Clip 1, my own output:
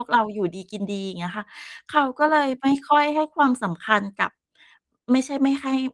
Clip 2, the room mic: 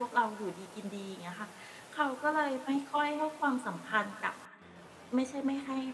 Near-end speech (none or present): none